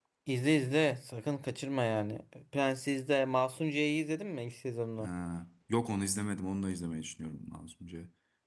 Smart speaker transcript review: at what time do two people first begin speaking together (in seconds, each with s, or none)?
none